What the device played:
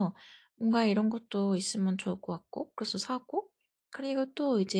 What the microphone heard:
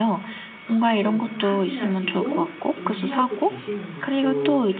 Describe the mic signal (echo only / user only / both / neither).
both